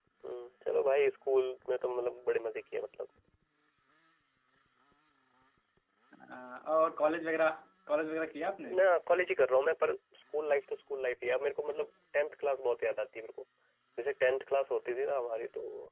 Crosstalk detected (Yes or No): No